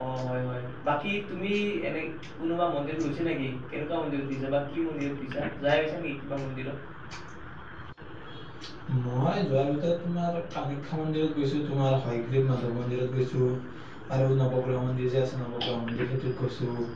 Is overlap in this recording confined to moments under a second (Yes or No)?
Yes